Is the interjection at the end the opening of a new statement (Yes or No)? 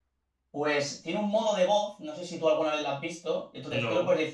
No